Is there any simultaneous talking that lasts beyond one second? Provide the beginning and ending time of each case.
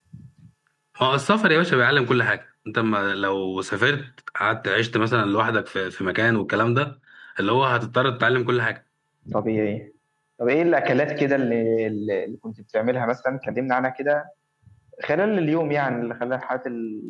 none

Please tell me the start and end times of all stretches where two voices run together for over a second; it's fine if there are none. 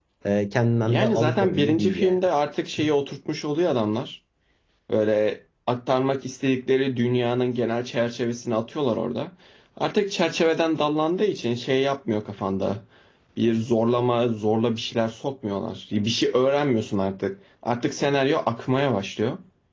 0.9-2.2

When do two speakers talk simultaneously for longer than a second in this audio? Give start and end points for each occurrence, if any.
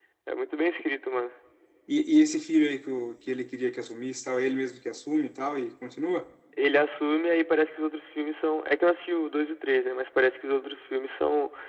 none

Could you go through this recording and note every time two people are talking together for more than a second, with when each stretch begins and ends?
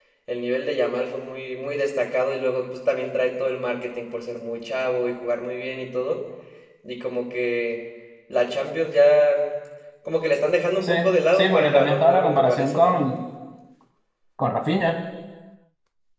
11.3-13.0

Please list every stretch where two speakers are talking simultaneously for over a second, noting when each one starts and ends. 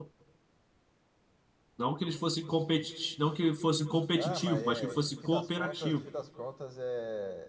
4.2-6.1

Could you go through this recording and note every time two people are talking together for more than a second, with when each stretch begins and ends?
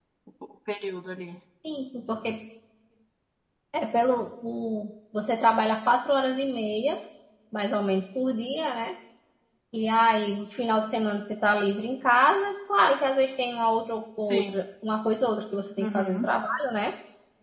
none

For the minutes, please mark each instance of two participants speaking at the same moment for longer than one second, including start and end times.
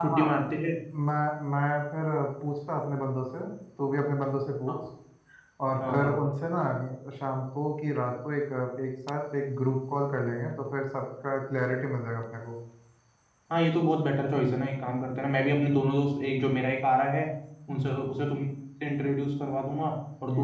none

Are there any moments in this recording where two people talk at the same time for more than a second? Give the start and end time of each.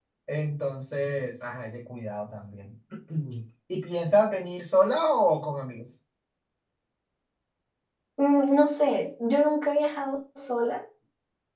none

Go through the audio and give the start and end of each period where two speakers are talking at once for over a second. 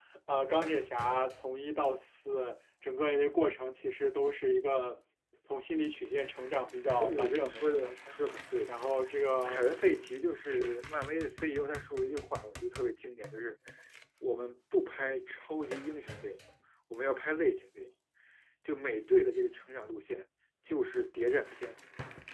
7.0-8.2

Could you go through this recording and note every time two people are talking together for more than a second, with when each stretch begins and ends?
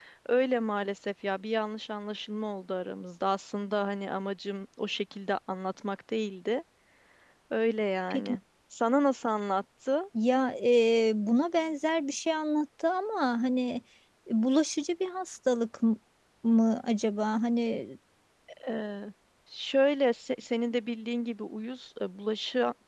none

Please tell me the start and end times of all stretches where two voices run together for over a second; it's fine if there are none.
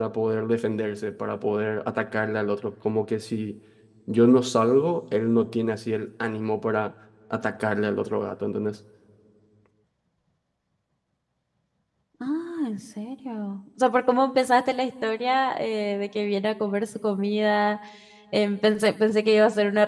none

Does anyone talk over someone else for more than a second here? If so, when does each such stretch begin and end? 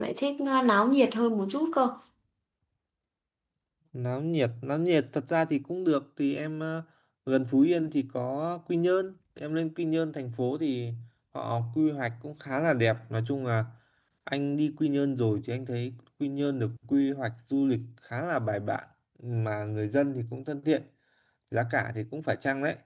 none

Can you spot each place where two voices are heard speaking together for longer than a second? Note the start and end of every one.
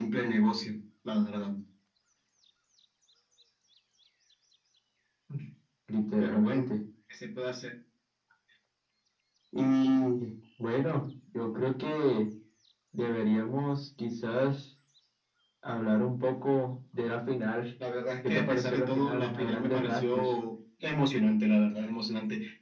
18.2-20.3

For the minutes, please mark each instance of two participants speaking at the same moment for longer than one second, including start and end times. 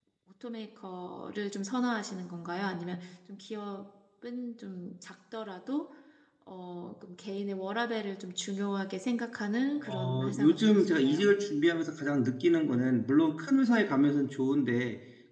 9.9-11.3

